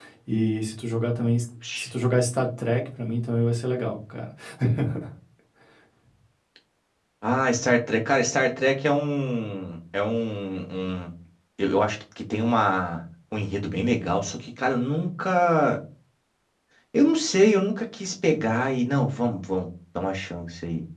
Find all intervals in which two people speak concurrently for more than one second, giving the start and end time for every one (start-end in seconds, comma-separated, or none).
none